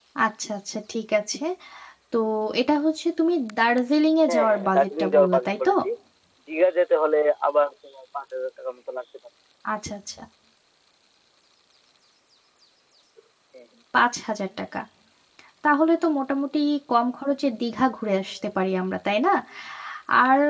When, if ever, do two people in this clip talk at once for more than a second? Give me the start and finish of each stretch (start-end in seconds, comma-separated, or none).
4.3-5.7